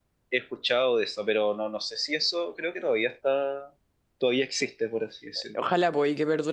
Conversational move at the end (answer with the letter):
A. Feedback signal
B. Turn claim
B